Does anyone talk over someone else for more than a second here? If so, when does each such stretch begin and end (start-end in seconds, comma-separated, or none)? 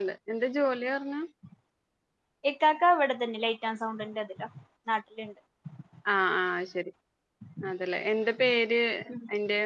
none